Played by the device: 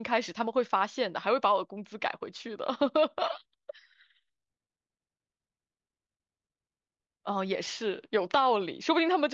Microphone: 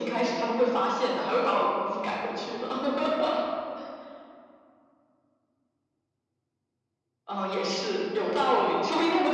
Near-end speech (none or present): none